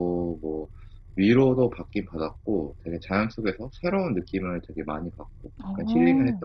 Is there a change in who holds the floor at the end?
Yes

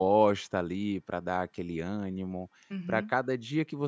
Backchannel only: Yes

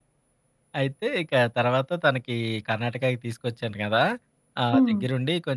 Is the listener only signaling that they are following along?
Yes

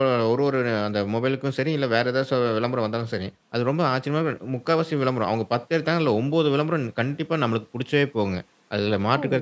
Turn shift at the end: No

